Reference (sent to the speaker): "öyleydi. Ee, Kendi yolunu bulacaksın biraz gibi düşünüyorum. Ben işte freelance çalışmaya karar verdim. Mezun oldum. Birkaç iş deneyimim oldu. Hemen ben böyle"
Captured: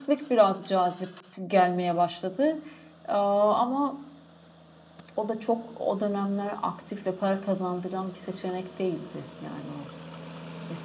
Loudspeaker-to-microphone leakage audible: No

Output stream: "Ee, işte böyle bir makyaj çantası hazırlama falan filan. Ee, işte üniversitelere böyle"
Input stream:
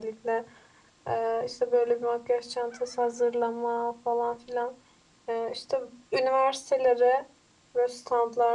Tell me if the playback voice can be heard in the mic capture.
Yes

